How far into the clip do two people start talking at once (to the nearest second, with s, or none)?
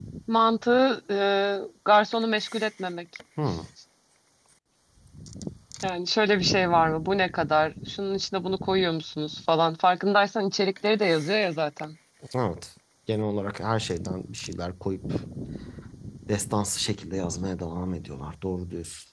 none